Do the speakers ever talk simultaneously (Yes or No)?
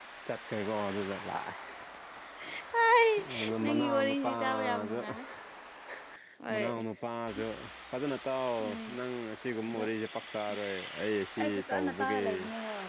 Yes